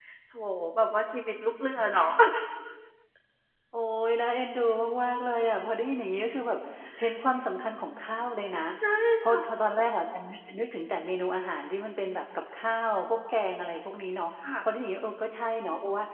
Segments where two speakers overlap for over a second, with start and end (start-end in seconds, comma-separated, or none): none